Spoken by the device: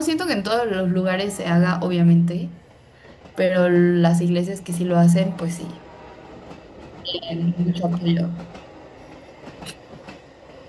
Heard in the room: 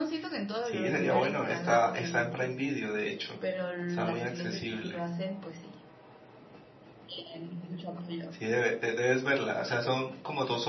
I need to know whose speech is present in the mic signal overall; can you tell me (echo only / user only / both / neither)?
both